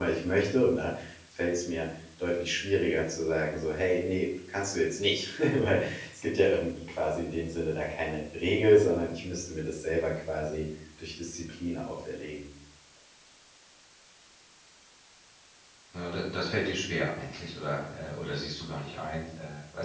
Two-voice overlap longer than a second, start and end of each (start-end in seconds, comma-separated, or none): none